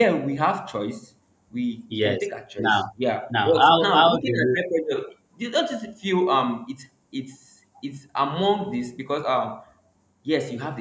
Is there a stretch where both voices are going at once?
Yes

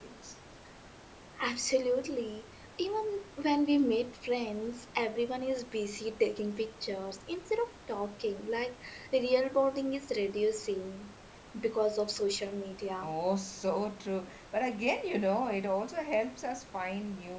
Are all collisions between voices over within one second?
Yes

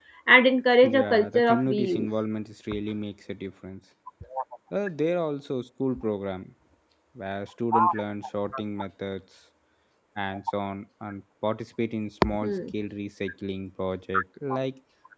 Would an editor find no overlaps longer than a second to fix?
No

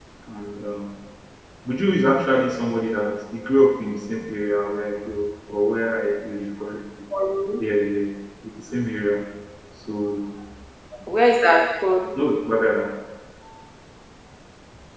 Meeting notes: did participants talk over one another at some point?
No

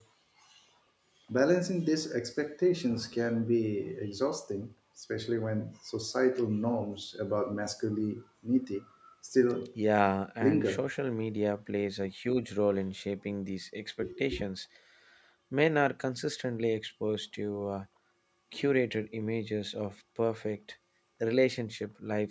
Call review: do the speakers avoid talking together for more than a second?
Yes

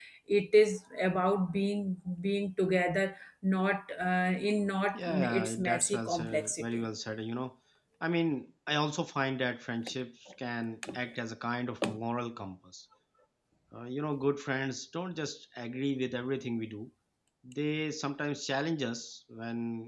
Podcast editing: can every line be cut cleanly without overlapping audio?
No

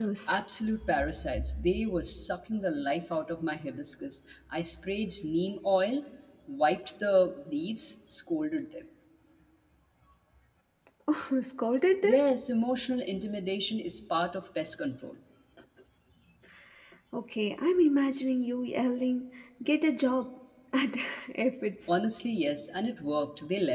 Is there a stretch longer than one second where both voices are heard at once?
No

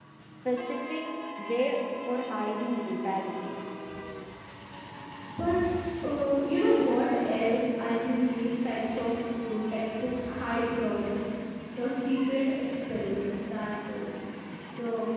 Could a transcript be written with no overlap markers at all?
Yes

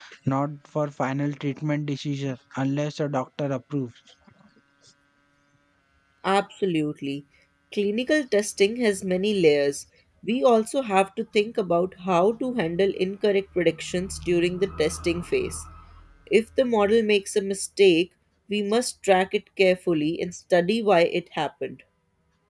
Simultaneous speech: No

